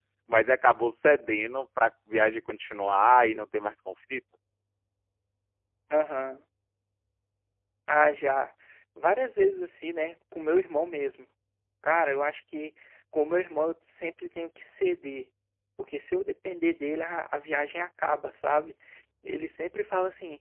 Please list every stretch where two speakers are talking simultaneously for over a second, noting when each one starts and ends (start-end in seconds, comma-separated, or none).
none